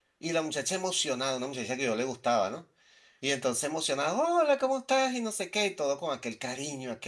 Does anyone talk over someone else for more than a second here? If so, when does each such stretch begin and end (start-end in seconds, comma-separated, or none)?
none